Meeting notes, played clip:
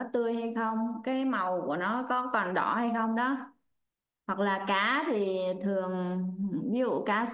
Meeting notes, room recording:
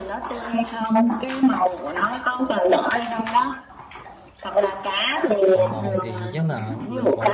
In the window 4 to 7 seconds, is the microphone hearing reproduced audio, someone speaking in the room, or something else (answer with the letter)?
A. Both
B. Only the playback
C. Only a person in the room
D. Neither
A